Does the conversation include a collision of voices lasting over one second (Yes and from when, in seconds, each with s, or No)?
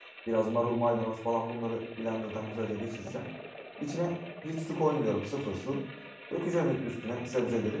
No